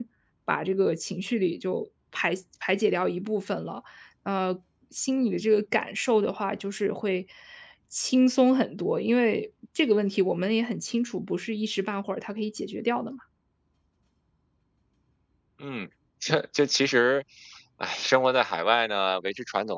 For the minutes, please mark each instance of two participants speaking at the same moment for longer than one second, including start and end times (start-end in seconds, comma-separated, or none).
none